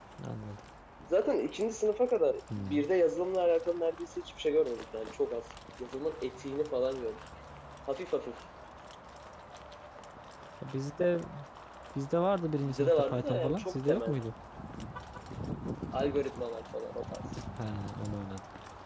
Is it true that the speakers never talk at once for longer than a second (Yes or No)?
No